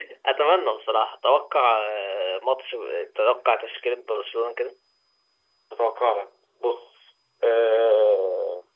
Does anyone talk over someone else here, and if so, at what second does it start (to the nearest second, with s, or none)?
none